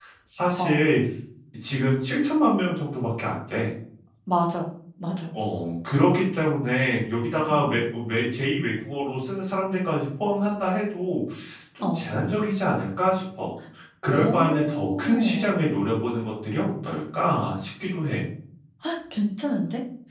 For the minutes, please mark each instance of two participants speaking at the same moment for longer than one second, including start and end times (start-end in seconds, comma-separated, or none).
14.1-15.5